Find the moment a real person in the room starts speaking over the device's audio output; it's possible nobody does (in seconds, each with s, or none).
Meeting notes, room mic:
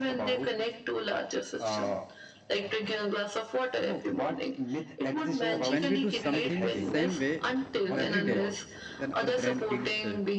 5.4 s